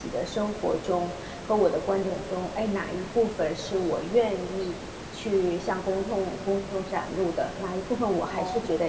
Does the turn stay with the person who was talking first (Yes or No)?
Yes